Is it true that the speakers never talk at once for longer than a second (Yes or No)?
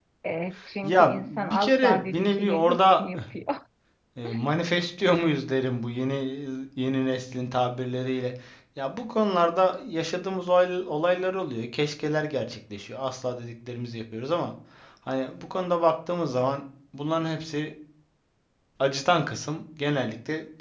No